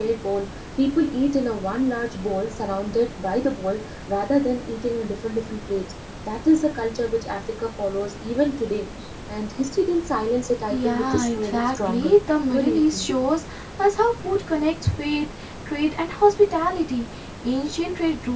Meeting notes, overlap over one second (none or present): present